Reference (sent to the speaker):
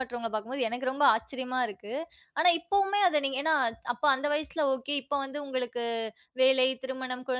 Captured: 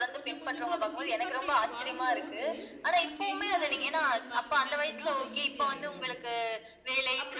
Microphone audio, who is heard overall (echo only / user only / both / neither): both